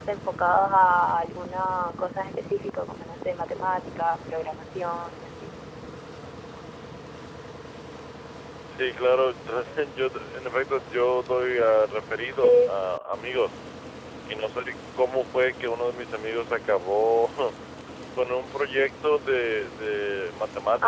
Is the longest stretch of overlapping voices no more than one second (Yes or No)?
Yes